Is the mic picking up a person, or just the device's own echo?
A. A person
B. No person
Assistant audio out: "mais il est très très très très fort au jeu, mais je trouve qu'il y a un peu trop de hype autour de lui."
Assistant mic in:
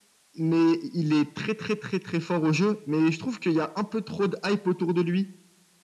B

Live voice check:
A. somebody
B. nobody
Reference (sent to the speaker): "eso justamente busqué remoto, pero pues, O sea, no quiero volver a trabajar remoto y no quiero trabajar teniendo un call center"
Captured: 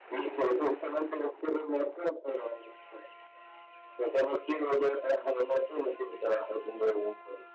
B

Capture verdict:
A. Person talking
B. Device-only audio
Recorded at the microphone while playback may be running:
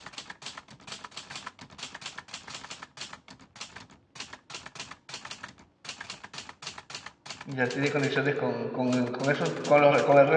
A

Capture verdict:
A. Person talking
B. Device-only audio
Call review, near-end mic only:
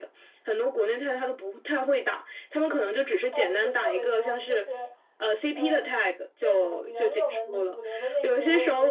A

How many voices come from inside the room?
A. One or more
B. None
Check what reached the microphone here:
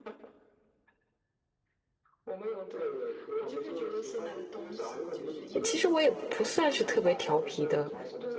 A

